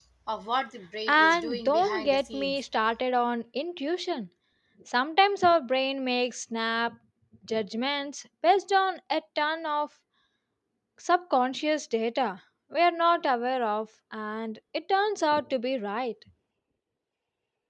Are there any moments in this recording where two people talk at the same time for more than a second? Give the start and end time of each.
1.1-2.6

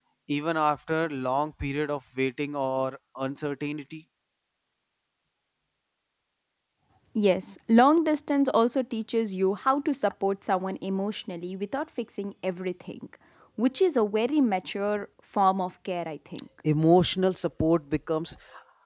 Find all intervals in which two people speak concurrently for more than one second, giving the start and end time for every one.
none

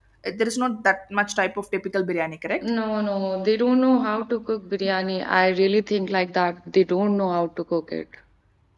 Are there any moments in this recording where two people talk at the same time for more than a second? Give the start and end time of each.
none

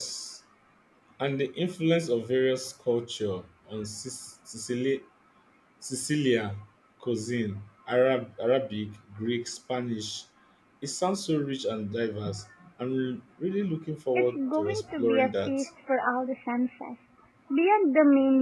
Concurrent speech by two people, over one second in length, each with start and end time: 14.2-15.7

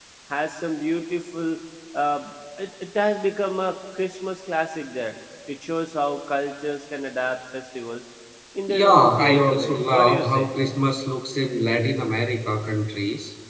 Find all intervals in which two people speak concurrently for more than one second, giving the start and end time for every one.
8.7-10.5

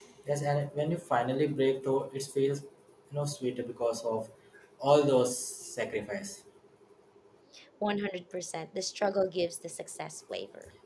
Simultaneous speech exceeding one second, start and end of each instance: none

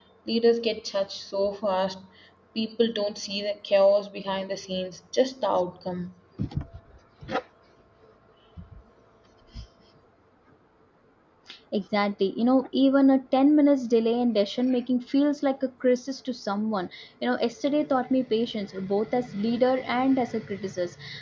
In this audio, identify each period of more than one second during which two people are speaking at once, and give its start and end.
none

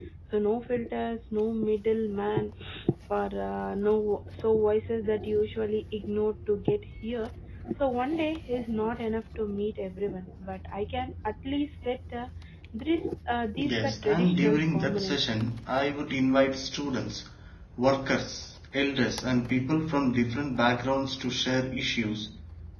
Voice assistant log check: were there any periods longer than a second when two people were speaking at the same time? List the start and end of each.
13.6-15.4

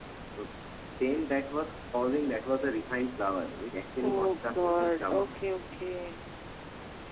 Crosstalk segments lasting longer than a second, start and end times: 4.0-5.4

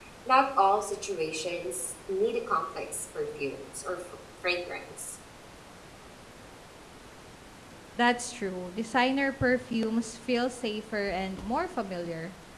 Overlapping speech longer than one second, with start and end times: none

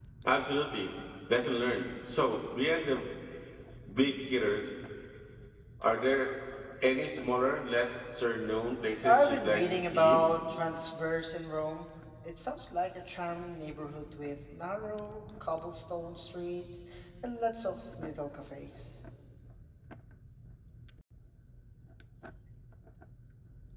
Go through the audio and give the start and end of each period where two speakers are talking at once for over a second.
9.0-10.3

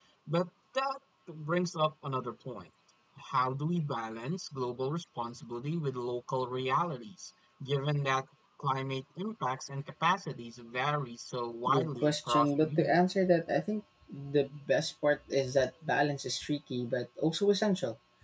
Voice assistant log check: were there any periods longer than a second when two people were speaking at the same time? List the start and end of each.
11.7-13.0

